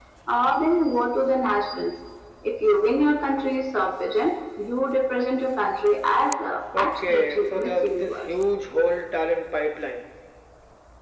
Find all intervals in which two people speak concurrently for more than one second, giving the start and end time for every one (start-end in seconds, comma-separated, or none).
6.8-8.3